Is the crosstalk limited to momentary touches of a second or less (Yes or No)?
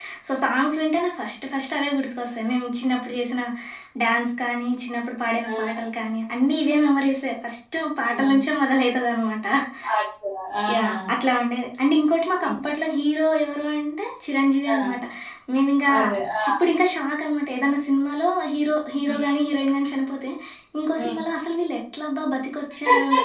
Yes